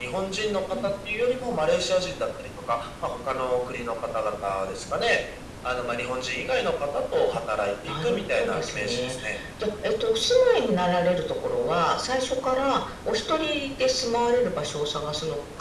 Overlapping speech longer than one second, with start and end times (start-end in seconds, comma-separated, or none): 7.9-9.1